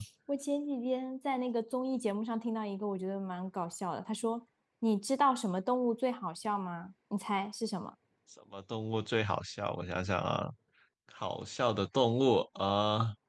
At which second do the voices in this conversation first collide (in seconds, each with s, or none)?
none